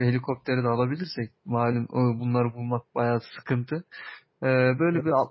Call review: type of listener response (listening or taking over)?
listening